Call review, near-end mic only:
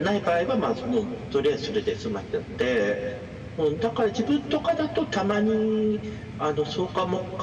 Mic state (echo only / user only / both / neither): echo only